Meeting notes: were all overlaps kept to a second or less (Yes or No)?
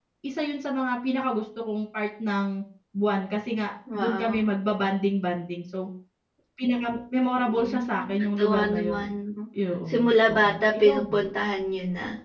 No